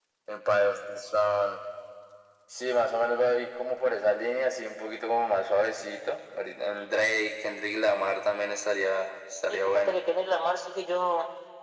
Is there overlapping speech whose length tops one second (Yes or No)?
No